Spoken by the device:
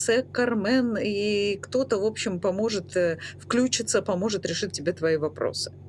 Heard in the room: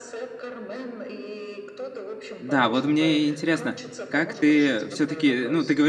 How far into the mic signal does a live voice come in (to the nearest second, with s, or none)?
2 s